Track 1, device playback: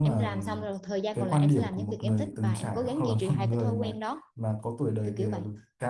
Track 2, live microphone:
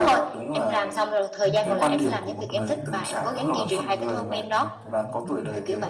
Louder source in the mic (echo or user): echo